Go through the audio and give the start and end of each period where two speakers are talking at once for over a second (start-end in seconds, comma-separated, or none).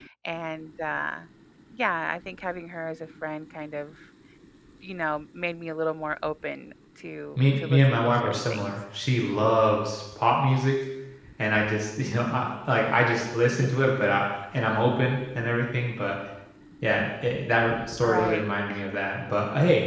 7.4-8.8